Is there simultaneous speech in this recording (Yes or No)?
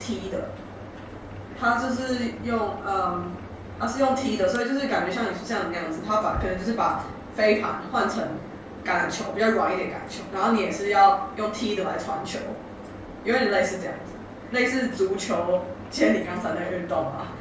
No